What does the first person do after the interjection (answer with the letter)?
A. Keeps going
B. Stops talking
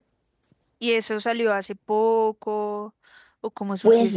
B